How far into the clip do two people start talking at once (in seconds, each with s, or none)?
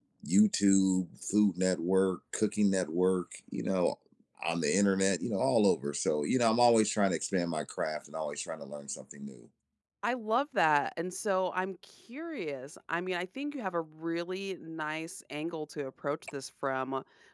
none